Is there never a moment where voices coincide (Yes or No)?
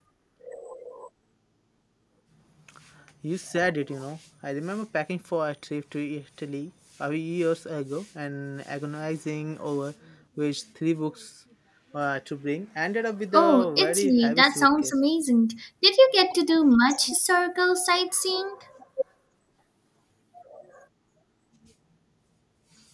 No